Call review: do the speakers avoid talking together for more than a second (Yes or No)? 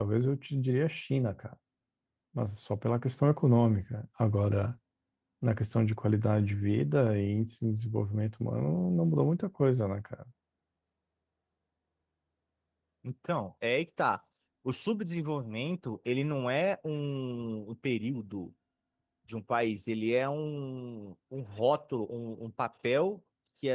Yes